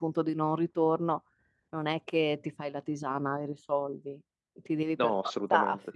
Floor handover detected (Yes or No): No